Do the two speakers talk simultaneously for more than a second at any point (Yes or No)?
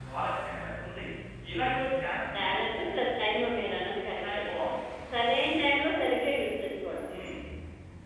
No